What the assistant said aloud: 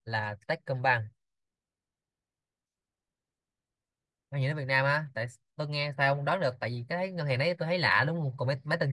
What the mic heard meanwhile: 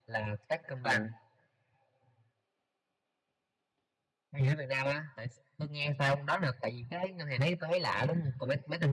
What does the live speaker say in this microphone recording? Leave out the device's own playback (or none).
Ừ.